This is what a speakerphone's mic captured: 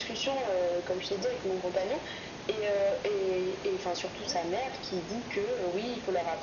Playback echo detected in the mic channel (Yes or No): Yes